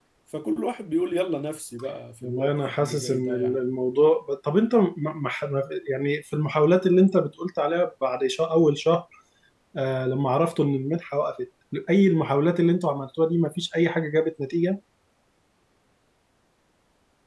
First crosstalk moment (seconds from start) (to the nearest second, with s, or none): 2 s